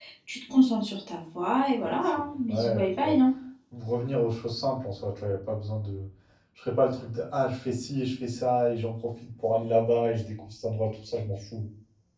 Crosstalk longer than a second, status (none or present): present